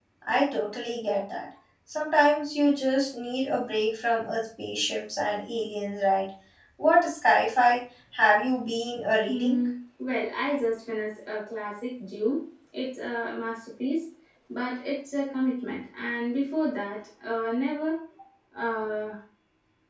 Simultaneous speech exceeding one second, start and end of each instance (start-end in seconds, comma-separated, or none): none